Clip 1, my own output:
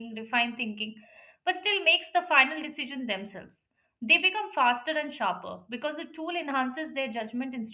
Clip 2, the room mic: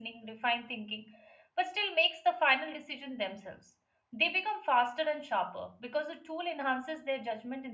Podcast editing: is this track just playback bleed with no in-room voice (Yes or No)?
Yes